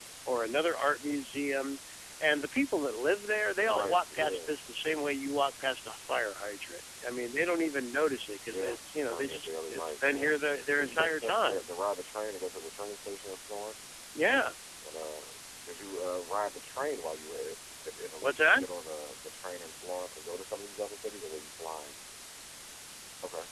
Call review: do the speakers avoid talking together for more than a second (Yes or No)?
No